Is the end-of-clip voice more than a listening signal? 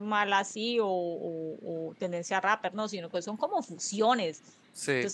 No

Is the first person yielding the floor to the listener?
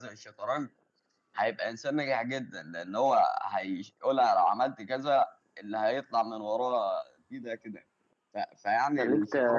Yes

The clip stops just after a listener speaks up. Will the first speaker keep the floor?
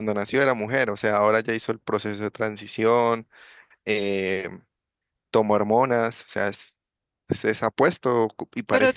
Yes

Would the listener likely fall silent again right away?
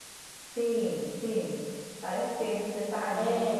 No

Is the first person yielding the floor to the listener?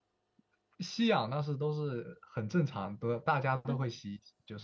No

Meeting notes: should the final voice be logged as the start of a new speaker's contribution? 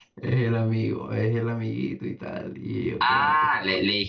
Yes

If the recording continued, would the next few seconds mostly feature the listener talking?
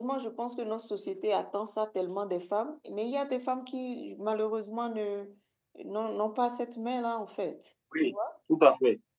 Yes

